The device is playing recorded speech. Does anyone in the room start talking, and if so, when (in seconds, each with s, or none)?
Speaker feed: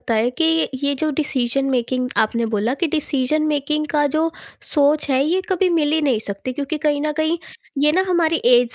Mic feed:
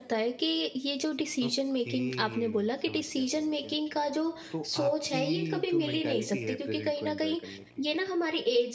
1.4 s